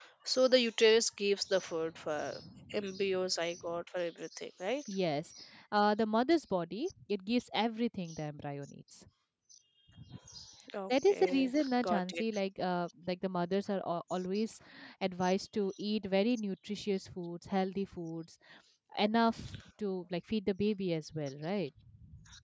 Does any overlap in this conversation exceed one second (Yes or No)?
Yes